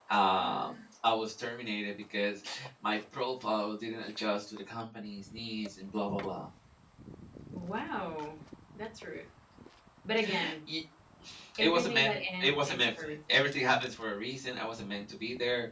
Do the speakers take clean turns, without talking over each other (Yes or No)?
No